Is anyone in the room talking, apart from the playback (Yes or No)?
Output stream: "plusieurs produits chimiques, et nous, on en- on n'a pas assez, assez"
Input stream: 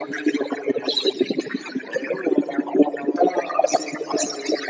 No